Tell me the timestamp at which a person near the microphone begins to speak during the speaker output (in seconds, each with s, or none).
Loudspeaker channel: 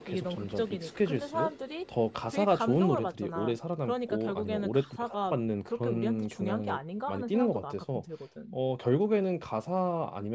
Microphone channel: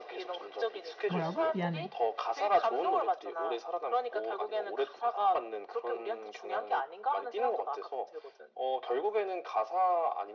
1.1 s